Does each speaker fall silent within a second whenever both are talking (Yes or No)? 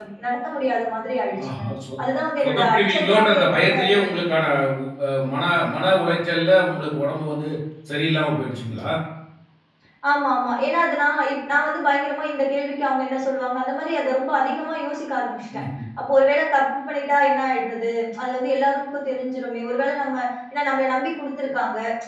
No